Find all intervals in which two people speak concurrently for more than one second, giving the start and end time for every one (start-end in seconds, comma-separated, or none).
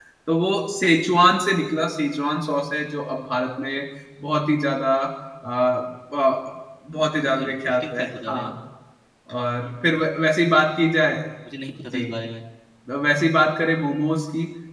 7.2-8.5